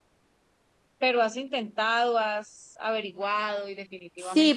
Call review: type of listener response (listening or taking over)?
taking over